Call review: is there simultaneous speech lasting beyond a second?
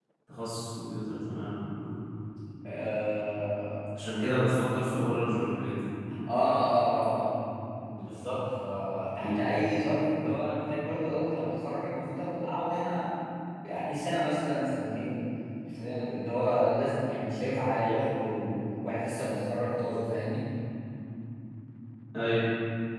No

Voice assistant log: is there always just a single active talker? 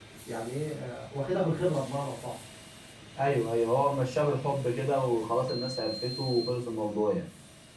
Yes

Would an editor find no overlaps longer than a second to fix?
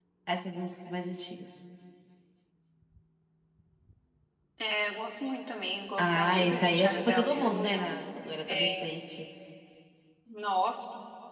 No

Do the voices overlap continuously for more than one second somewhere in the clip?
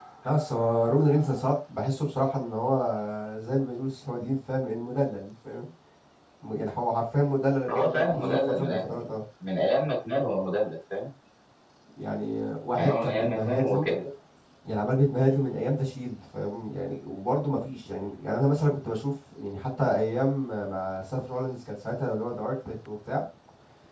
Yes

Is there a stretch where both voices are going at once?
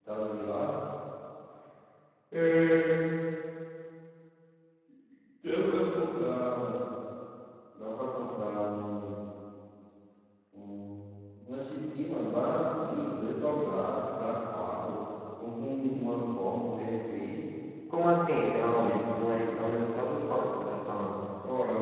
No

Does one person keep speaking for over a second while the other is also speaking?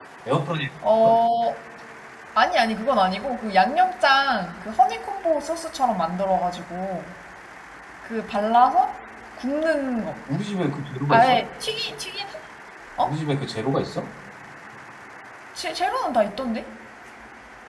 No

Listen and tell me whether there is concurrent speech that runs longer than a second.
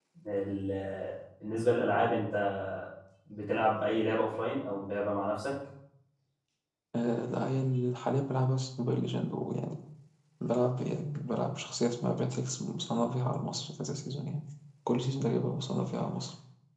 No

